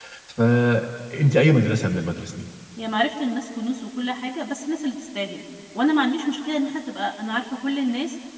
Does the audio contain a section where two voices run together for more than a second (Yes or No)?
No